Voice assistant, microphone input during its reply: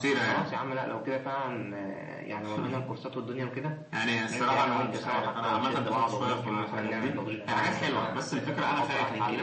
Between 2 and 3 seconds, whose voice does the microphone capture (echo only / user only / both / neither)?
echo only